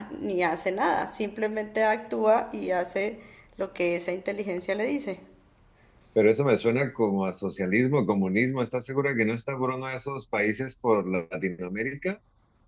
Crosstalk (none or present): none